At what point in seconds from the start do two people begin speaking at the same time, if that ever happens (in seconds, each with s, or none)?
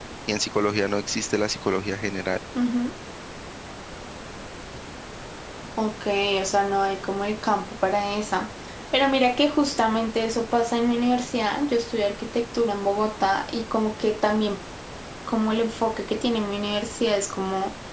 none